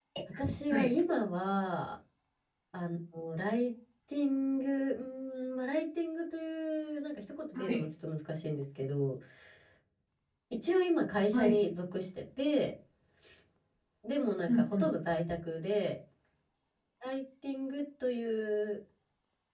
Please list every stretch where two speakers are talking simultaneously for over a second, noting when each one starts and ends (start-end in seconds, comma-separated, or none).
none